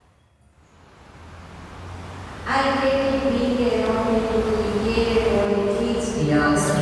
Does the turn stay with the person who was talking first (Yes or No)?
No